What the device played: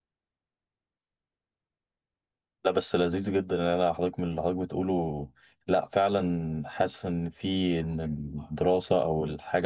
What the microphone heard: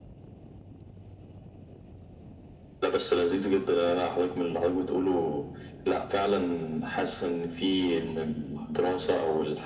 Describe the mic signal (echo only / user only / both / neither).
echo only